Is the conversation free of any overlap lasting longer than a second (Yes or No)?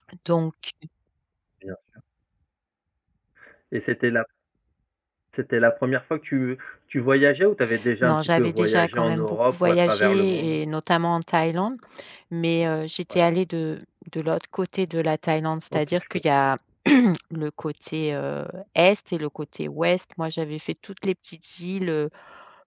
No